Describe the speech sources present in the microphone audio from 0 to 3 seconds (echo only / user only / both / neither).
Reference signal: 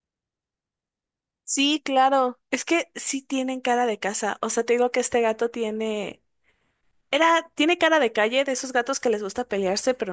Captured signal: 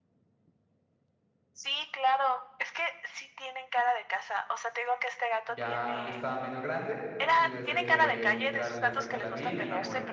echo only